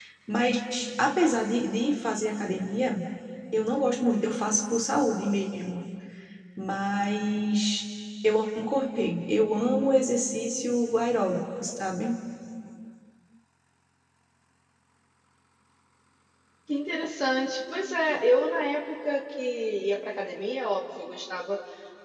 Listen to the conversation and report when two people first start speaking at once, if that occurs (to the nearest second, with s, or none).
none